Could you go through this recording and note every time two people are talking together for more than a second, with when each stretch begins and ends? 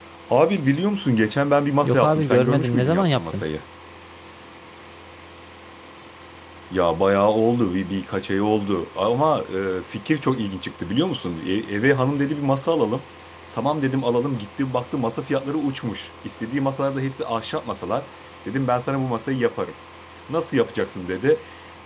1.8-3.4

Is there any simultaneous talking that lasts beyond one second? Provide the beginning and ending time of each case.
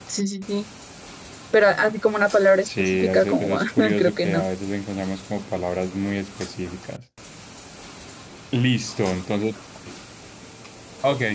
2.6-4.5

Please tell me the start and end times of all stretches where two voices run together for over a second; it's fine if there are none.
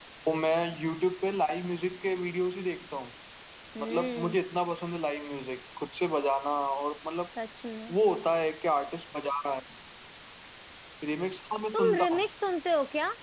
none

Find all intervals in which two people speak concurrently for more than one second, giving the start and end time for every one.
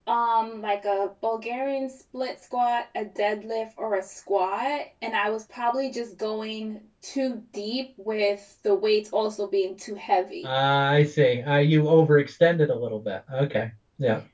none

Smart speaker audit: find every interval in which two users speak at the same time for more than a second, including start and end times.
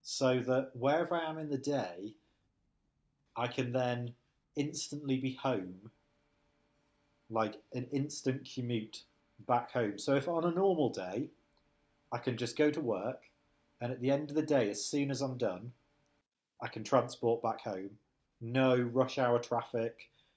none

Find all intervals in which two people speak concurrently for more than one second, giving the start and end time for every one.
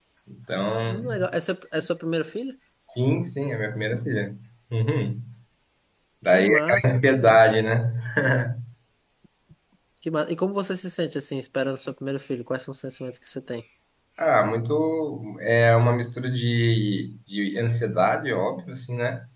6.3-7.5

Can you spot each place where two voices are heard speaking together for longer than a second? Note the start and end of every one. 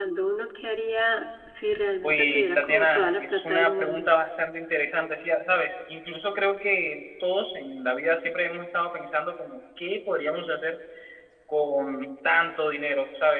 2.0-4.1

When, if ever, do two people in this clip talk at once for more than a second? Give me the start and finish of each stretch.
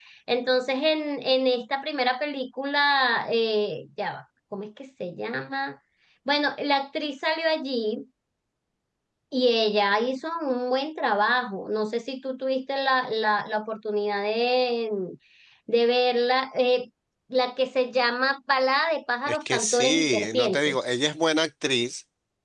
19.3-20.8

